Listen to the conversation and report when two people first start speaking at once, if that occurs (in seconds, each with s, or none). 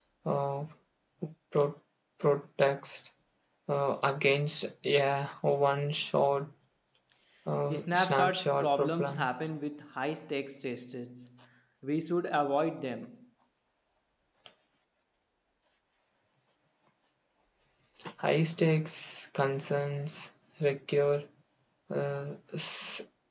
7.7 s